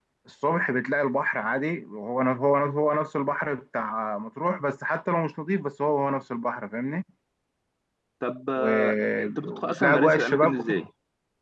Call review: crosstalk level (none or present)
present